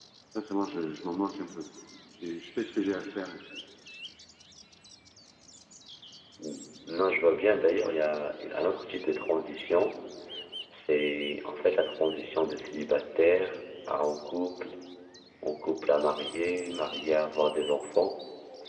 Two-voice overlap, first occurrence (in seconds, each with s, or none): none